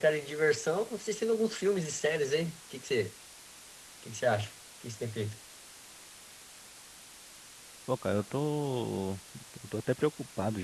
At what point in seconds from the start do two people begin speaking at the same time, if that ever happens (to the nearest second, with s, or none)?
none